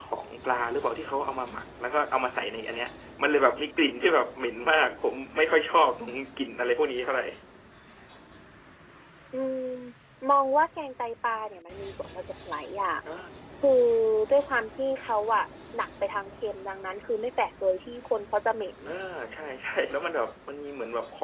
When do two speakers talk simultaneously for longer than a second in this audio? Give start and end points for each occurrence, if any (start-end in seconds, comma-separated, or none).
none